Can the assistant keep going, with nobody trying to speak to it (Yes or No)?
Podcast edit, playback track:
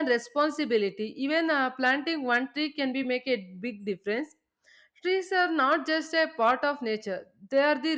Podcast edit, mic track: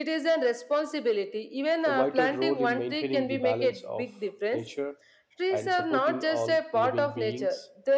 No